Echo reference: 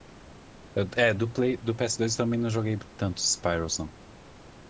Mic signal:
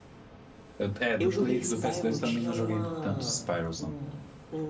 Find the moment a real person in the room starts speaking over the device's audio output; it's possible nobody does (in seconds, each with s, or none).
1.1 s